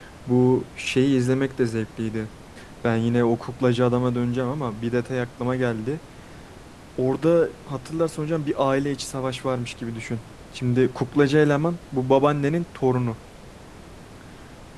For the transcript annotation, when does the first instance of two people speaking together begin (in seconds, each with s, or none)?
none